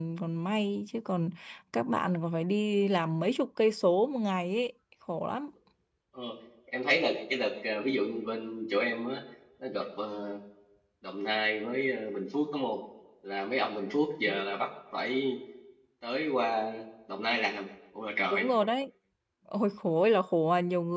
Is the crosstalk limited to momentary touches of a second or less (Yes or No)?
Yes